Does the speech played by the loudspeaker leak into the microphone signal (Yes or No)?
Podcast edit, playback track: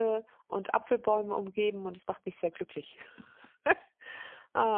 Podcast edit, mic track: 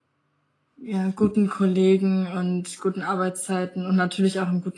No